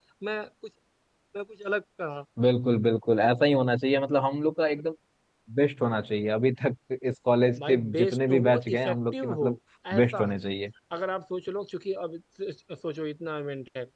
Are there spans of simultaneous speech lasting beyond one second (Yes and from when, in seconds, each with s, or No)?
Yes, from 7.6 s